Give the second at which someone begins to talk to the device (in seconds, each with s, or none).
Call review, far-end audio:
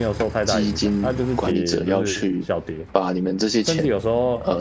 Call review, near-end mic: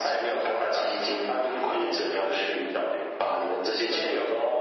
none